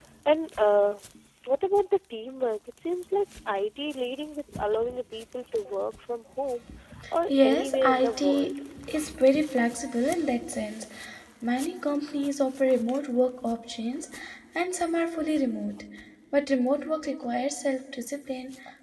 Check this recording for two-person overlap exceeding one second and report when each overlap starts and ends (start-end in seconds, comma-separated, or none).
7.3-8.5